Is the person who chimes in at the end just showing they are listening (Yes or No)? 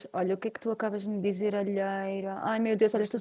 Yes